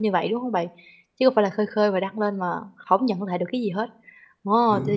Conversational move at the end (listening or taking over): listening